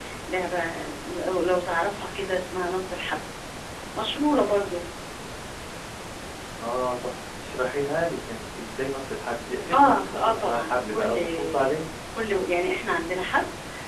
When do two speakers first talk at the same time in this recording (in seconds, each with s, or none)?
9.7 s